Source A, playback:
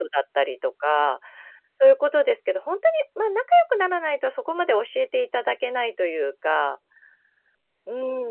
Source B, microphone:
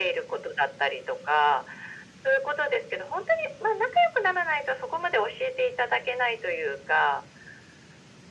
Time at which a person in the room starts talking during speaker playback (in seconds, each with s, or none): none